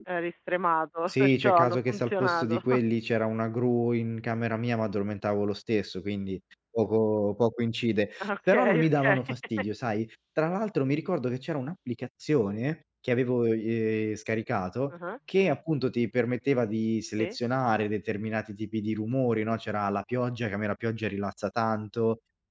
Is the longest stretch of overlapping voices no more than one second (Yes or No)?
No